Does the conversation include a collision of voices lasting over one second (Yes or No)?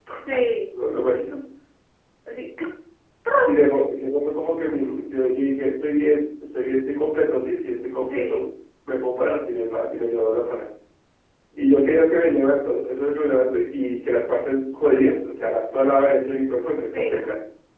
No